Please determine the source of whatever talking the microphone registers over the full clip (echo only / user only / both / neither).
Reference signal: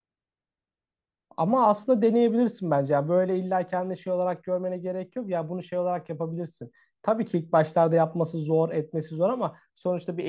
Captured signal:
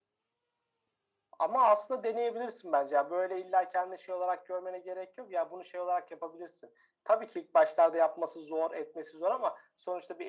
echo only